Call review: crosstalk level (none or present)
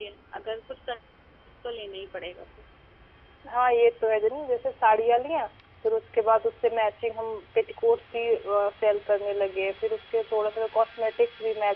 none